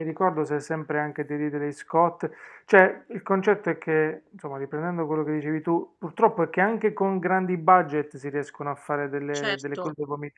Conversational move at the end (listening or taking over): taking over